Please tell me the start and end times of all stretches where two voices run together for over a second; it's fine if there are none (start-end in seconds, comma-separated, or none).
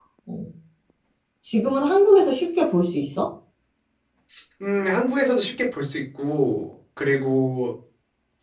none